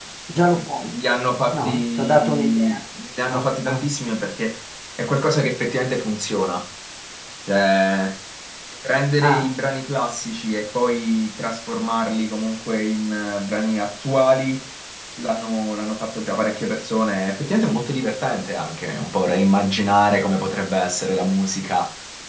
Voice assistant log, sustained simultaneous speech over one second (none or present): present